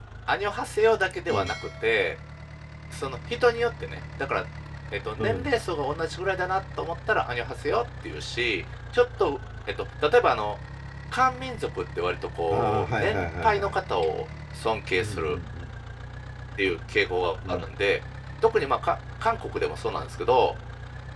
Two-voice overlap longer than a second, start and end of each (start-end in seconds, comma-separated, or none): 12.5-13.7